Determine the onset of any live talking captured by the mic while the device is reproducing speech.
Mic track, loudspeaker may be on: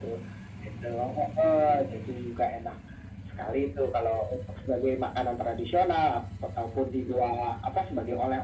none

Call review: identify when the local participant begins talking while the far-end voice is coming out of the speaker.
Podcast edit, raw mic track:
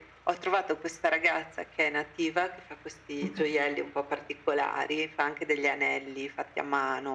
3.2 s

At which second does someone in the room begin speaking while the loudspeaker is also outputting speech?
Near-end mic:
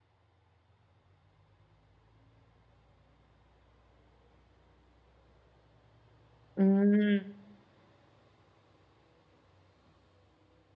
6.6 s

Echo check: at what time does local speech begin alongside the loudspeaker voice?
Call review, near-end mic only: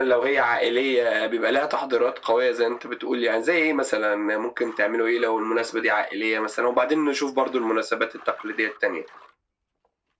none

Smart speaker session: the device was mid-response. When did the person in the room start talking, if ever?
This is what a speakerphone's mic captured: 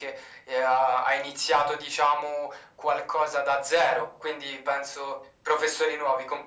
none

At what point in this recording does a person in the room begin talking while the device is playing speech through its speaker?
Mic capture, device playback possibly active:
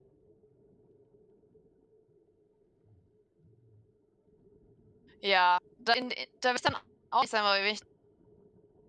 5.2 s

